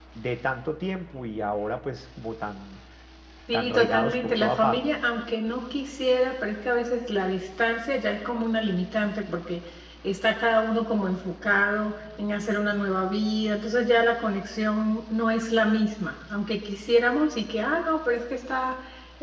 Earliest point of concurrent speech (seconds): 3.5 s

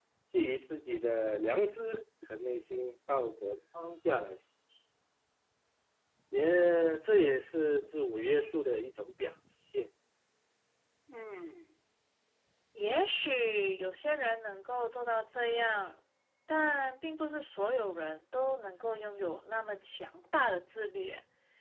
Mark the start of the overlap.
none

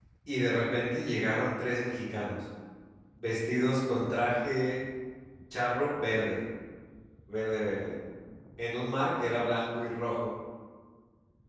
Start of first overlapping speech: none

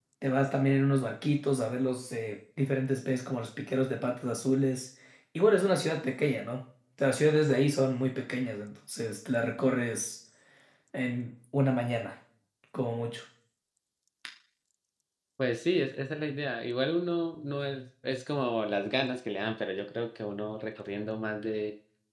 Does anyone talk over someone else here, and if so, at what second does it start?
none

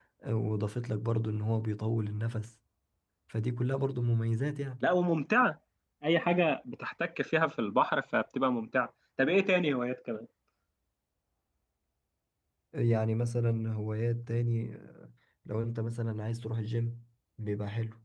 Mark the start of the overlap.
none

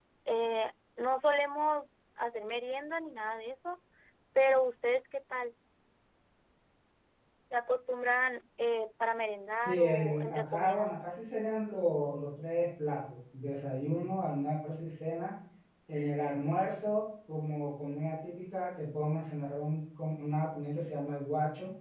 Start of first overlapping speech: 9.7 s

